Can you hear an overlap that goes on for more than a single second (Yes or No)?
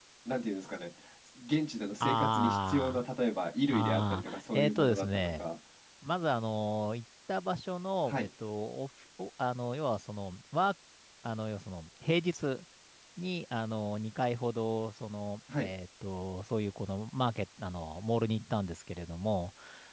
Yes